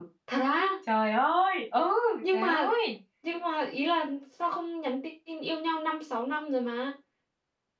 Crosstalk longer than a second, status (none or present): none